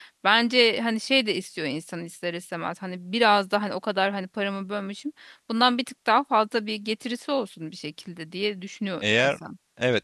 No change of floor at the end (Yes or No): No